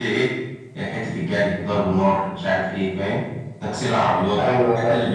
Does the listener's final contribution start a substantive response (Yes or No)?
No